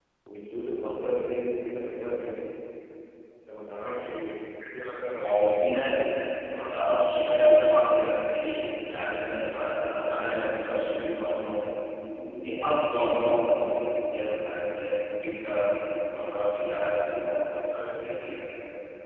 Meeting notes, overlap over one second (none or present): none